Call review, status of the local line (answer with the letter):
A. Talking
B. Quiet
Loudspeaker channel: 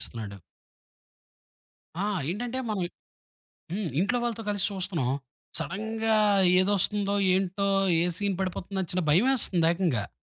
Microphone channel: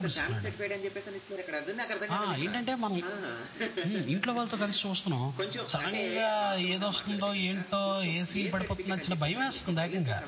A